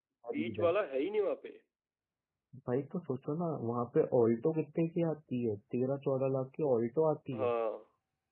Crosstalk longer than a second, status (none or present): none